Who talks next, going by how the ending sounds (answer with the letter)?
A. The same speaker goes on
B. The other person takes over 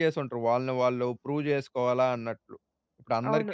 B